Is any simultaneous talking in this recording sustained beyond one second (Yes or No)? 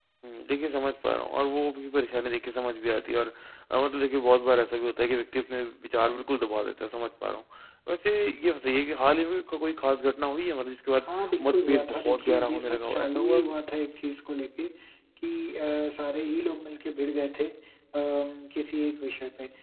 Yes